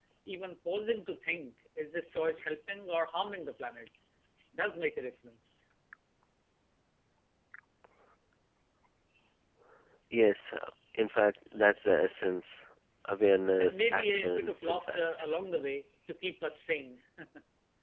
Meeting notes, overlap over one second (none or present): present